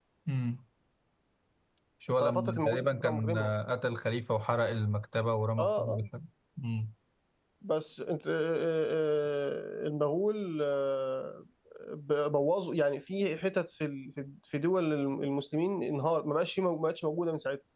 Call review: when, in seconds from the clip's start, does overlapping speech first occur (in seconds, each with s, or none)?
2.2 s